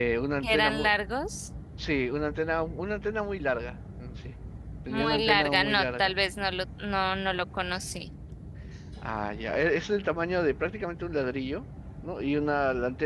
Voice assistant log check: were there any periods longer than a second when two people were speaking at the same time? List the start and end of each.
4.9-6.2

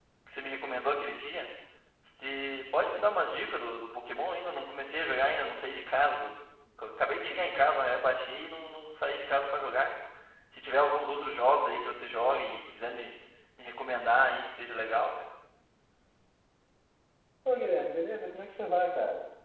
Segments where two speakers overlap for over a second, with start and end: none

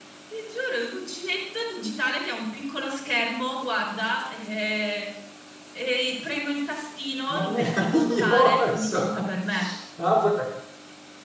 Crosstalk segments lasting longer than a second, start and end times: 7.3-9.1

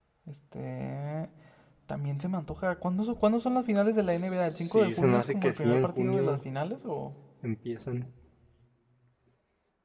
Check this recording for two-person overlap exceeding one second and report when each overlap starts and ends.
4.1-6.4

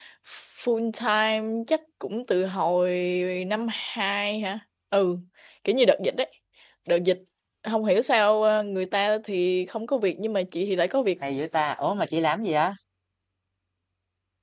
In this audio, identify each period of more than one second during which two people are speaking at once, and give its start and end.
none

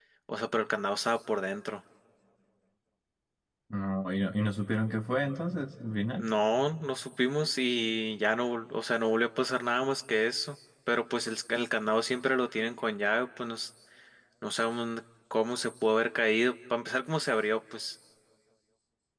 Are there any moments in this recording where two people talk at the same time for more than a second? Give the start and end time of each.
none

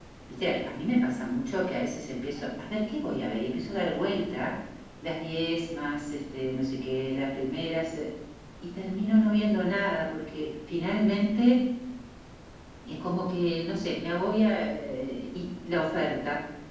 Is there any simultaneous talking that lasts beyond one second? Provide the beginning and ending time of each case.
none

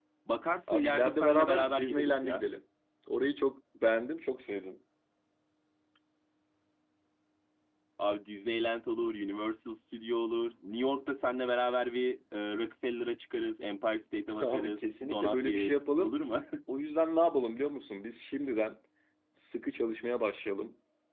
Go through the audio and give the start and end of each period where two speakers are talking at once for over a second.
0.7-2.5, 14.4-16.1

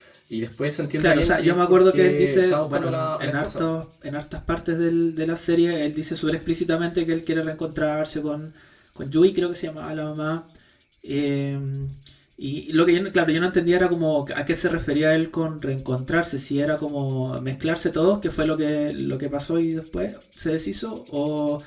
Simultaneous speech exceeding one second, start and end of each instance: 1.0-3.7

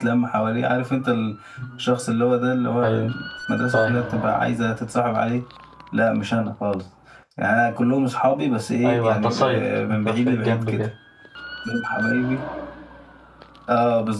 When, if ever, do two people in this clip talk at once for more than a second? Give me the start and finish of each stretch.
8.8-10.8

